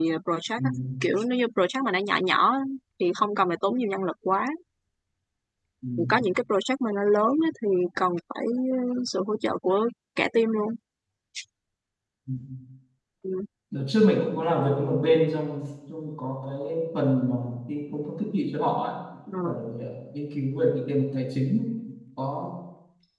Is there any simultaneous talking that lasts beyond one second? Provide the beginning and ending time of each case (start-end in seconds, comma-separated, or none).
none